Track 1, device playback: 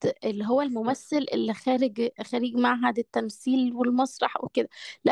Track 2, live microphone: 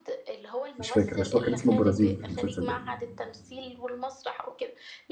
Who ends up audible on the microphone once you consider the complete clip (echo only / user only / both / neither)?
both